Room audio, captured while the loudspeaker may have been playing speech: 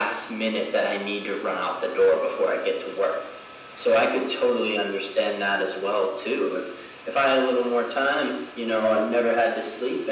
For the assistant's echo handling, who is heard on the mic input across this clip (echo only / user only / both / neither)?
echo only